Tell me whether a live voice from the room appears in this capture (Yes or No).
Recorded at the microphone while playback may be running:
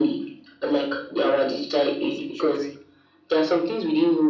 Yes